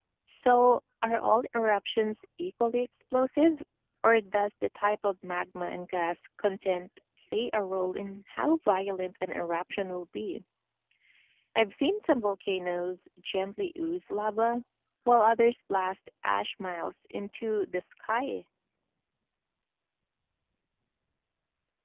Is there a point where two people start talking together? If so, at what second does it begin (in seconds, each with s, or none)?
none